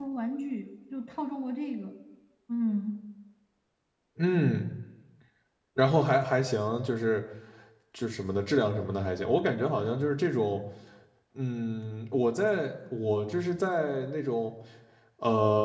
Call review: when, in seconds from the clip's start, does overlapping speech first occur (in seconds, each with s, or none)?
none